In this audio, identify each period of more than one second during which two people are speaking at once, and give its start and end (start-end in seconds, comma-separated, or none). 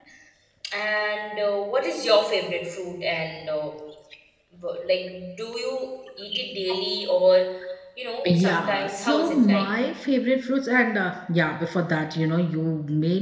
8.3-9.7